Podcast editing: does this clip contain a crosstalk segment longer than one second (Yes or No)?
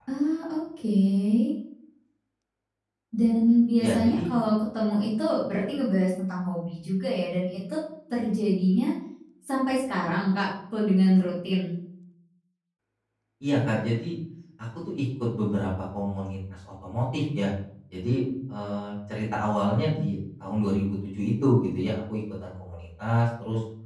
No